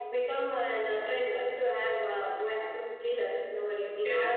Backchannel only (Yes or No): No